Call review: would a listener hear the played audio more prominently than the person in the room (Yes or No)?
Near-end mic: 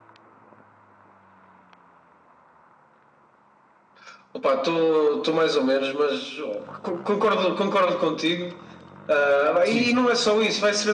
Yes